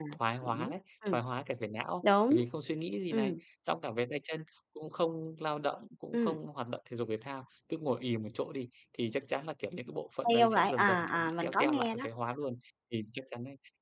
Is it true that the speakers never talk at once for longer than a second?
No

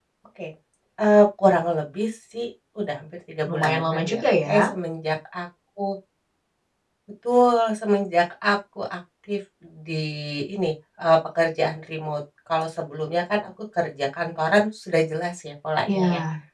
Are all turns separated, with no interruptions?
No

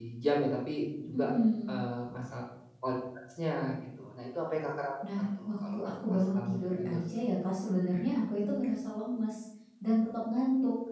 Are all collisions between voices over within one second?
No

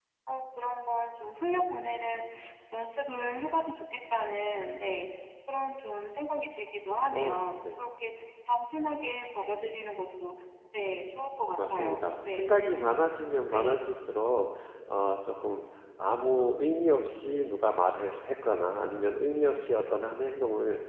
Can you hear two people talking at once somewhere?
Yes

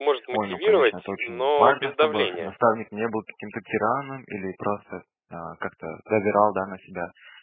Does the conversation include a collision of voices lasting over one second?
Yes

